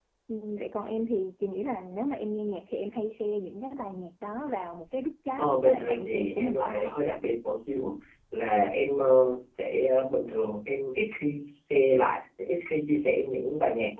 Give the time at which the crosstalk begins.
5.4 s

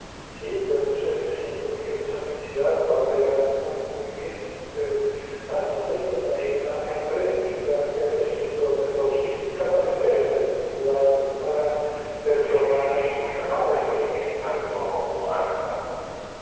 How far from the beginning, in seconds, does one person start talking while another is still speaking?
12.4 s

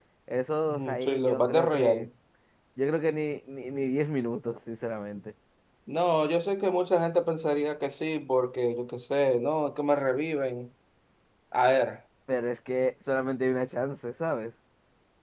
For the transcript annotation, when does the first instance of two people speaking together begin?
0.7 s

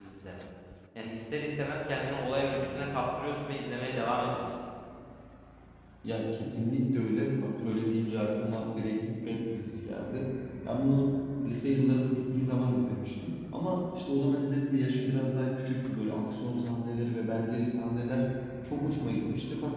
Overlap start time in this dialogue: none

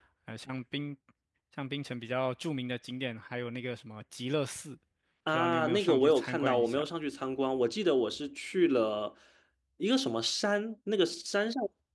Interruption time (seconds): 5.3 s

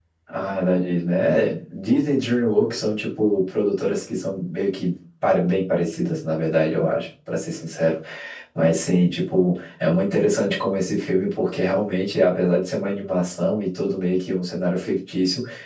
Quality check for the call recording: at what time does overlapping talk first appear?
none

